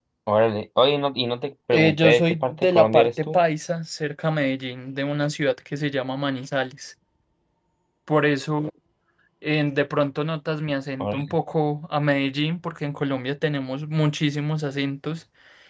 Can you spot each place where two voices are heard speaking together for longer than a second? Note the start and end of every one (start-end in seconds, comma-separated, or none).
1.7-3.4